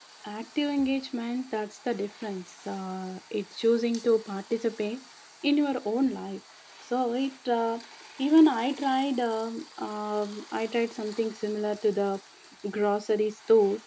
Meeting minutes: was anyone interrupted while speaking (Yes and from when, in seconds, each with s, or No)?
No